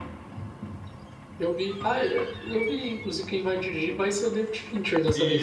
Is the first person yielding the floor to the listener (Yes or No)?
Yes